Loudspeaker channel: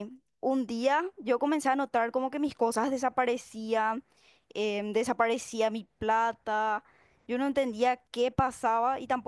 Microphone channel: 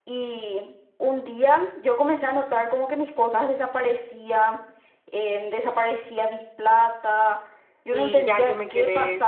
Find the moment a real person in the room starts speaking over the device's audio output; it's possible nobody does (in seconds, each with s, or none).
7.9 s